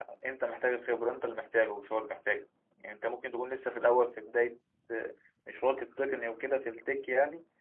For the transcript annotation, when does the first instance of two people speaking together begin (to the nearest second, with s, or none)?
none